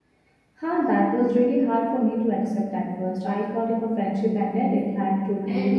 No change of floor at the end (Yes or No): No